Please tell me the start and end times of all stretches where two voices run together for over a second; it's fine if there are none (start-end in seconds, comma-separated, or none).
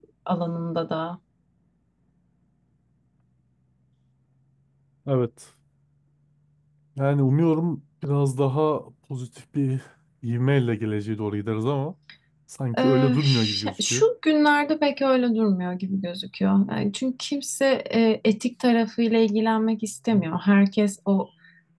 12.8-14.1